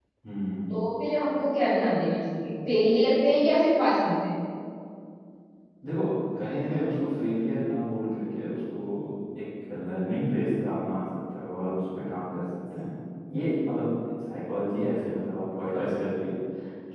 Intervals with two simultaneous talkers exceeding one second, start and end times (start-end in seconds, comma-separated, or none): none